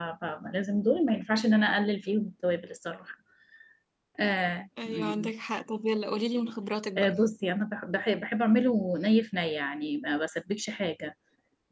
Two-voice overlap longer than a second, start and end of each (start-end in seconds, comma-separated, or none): none